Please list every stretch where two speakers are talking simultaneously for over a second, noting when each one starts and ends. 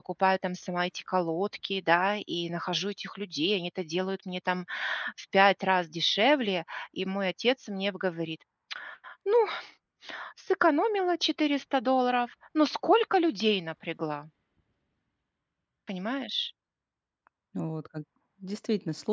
none

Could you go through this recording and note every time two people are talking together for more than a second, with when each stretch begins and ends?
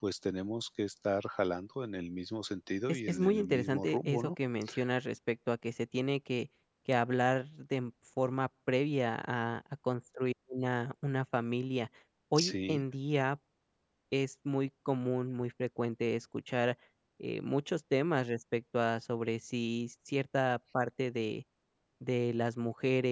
2.9-4.4

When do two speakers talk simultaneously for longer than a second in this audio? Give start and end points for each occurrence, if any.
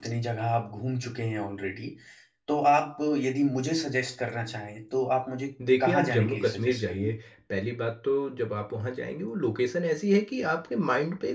5.8-7.1

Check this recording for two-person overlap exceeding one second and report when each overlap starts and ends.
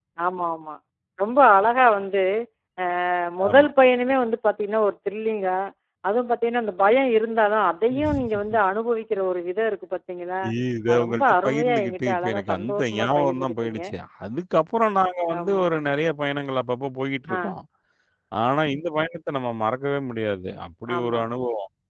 10.9-13.8

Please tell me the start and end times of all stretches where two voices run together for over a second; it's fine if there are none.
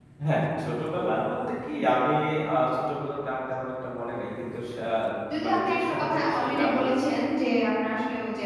5.4-6.9

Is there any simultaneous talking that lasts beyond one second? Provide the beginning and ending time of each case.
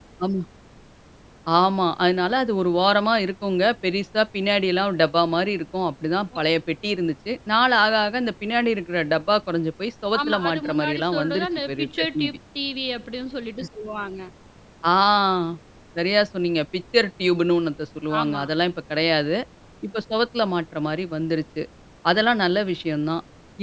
10.2-12.3

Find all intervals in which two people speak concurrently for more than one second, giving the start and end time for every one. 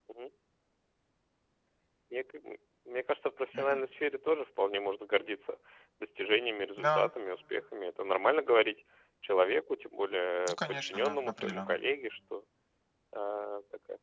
10.5-11.8

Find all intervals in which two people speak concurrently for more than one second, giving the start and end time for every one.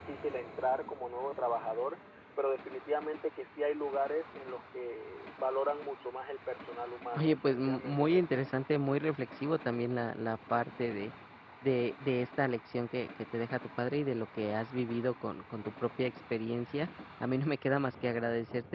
7.2-8.4

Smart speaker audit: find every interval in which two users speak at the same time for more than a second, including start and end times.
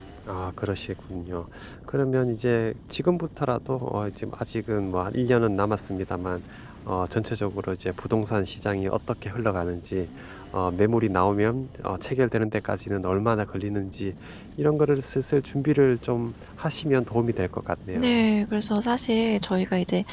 none

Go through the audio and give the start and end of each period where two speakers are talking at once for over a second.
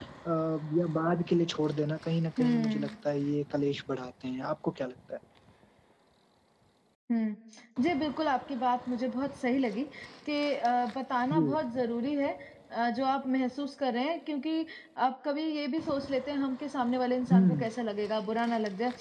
none

